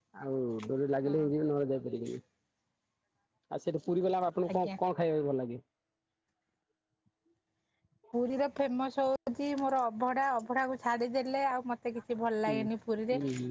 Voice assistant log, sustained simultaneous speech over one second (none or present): none